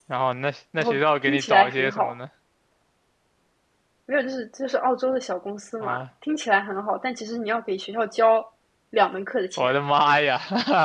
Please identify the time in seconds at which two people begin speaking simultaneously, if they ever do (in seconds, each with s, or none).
0.8 s